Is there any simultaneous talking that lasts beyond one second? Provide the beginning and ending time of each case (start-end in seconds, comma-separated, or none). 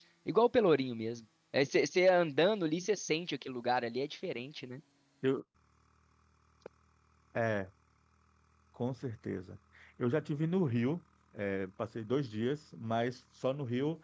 none